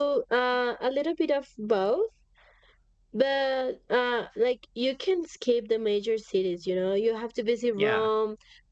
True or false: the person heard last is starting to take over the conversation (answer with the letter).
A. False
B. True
A